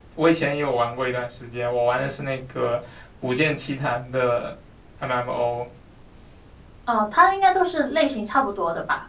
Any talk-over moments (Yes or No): No